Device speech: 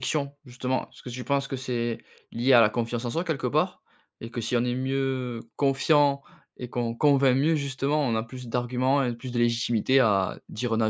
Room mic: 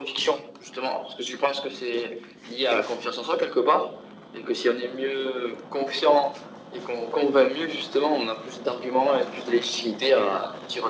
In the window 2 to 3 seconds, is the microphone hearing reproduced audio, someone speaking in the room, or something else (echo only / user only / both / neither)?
echo only